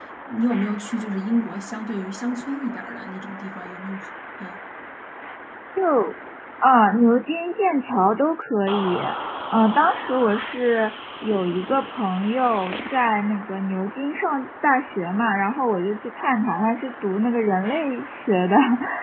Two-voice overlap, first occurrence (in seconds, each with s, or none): none